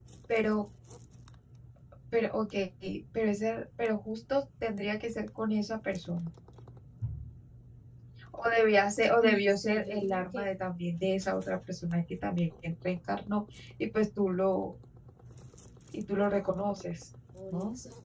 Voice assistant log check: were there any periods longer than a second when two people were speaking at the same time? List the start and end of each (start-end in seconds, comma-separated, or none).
9.2-10.4